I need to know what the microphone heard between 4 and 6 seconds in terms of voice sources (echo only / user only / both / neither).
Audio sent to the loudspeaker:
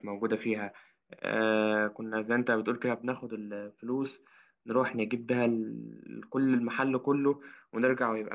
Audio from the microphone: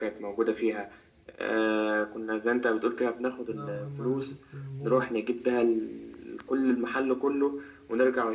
both